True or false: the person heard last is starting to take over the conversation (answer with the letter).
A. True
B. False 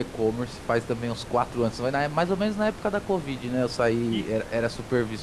B